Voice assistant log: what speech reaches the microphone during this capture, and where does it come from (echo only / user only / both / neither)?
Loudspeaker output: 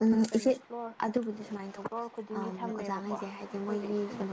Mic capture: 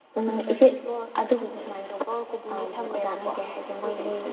echo only